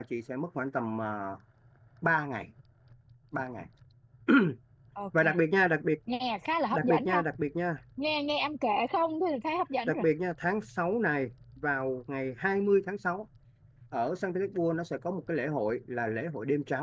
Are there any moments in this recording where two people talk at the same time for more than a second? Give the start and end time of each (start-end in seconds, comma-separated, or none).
none